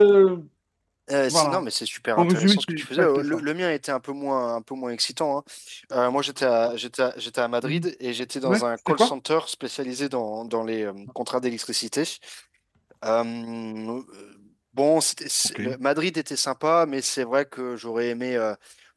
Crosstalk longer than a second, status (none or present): present